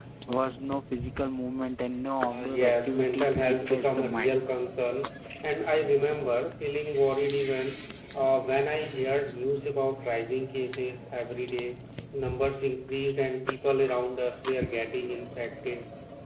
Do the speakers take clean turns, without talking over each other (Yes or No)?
No